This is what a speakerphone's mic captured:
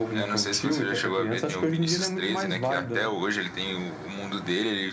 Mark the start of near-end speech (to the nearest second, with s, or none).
none